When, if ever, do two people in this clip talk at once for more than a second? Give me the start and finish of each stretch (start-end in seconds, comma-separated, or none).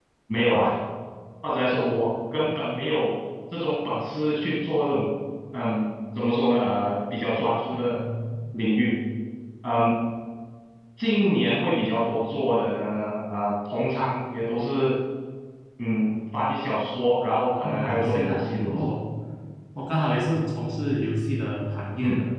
17.6-18.9